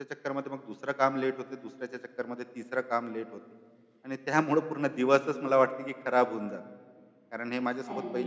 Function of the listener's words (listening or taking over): listening